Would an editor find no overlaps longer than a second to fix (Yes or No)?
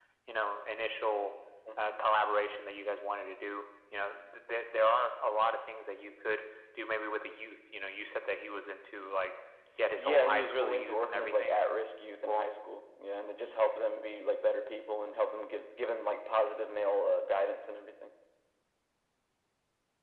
No